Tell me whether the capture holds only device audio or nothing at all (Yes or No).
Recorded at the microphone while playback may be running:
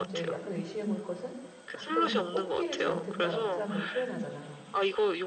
No